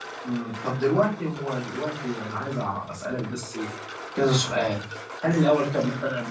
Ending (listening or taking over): listening